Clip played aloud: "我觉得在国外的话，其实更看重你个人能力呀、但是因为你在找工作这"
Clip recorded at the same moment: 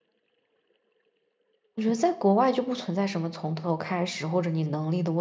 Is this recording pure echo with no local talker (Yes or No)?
No